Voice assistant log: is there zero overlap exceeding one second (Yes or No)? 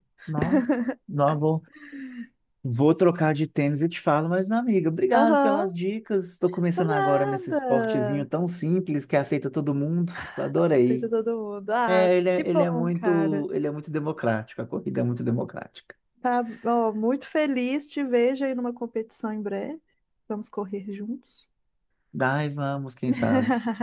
No